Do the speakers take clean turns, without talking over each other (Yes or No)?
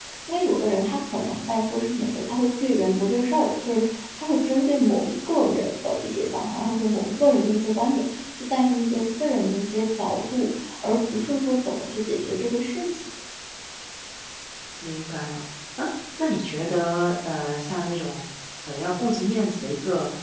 Yes